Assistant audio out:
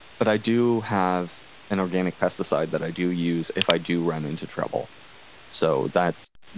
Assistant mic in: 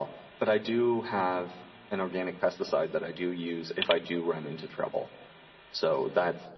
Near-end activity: none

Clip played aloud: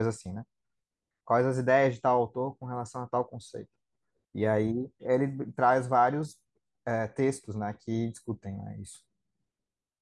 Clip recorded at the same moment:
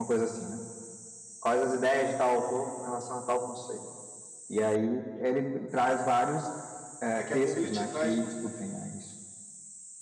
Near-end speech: present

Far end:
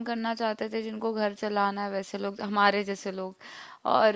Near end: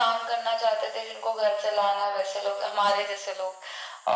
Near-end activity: none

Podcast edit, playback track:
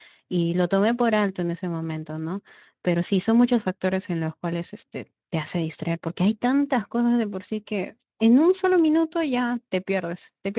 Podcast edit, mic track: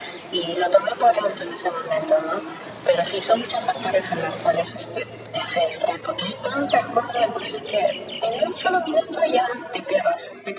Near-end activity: none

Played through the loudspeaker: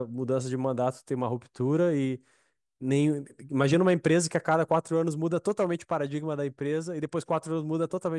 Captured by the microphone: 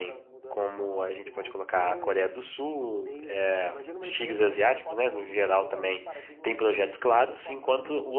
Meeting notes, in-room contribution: present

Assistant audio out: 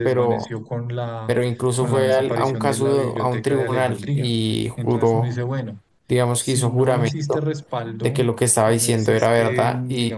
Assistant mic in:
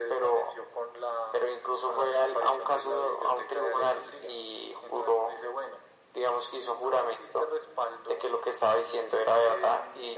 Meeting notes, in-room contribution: none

